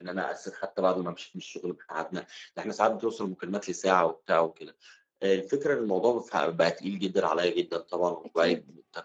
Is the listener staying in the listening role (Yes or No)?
Yes